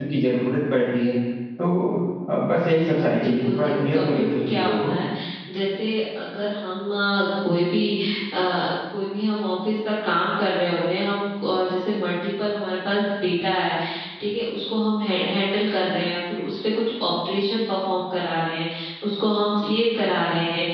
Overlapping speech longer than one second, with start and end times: 3.2-5.0

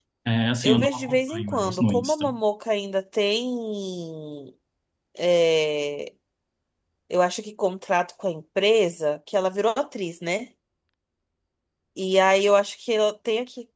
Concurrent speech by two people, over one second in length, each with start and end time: 0.6-2.2

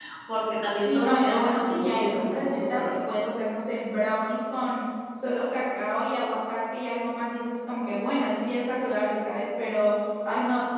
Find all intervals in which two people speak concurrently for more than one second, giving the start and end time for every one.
0.8-2.9

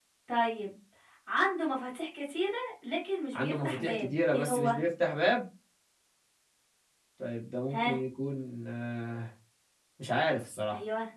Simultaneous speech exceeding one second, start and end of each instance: 3.3-4.8

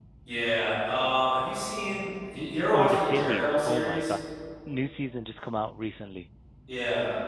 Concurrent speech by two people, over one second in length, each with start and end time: 2.7-4.1

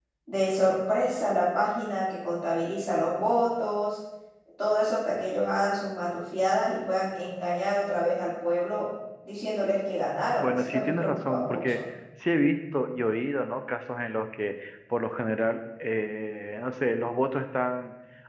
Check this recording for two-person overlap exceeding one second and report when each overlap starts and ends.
10.4-11.8

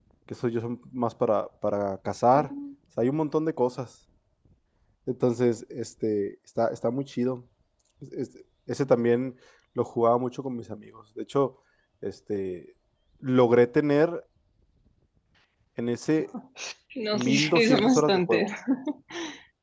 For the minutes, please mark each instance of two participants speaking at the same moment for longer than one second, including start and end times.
17.1-18.5

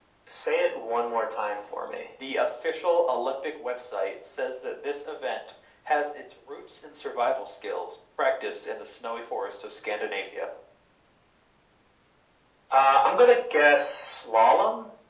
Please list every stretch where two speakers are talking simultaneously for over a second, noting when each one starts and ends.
none

